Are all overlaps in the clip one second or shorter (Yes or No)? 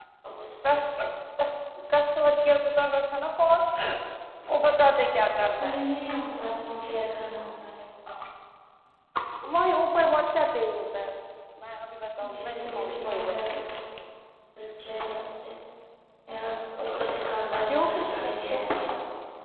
No